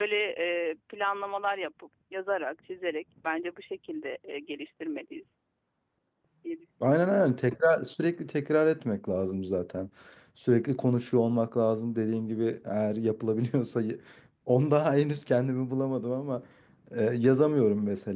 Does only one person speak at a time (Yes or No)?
Yes